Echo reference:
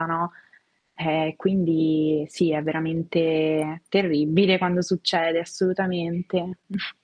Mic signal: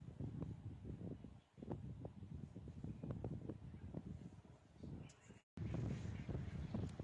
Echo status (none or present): none